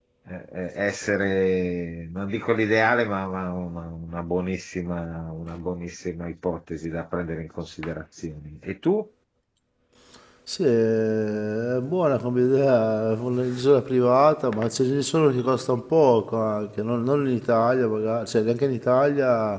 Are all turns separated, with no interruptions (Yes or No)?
Yes